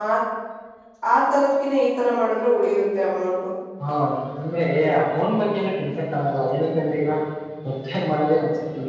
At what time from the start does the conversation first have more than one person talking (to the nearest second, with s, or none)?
none